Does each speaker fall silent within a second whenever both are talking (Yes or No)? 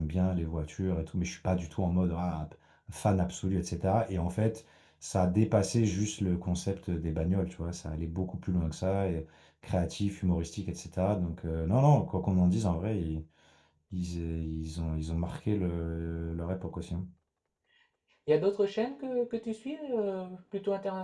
Yes